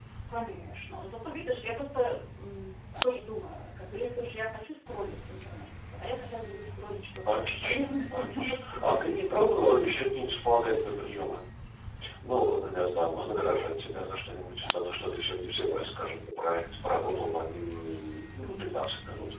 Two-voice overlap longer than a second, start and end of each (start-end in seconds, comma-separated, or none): 7.3-9.2